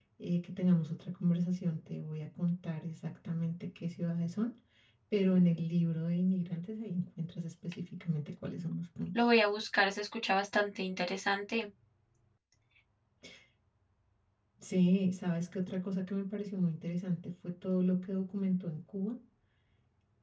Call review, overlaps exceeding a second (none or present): none